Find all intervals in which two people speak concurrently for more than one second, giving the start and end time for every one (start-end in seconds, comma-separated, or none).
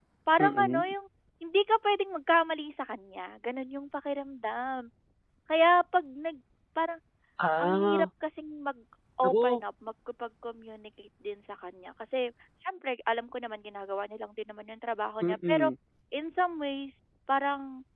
none